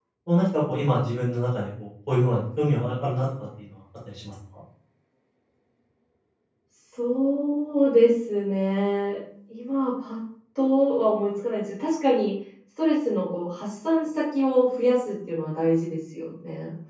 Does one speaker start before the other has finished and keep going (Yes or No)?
No